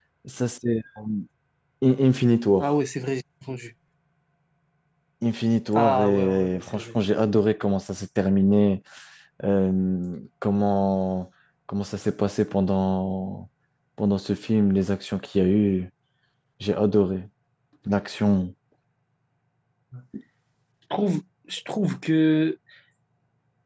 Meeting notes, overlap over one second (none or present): present